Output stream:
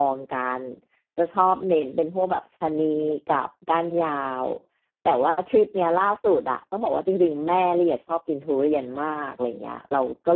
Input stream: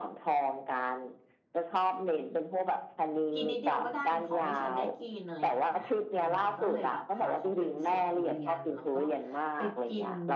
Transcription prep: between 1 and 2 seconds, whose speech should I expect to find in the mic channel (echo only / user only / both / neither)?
echo only